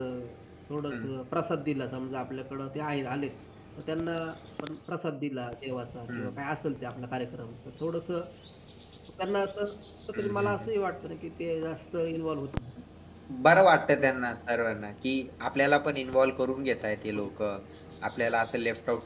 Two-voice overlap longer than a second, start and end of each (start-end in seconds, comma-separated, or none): none